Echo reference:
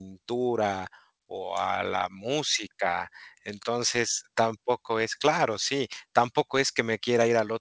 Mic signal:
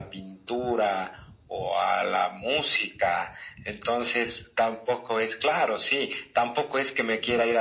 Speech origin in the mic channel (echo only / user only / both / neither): echo only